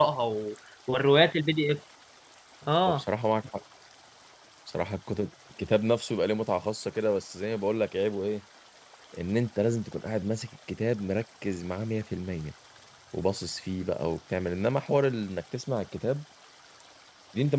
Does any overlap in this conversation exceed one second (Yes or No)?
No